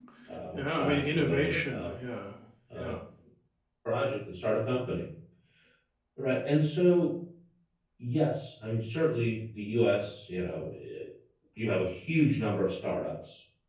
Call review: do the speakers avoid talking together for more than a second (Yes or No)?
No